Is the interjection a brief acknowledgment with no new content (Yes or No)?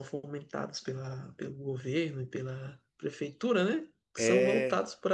Yes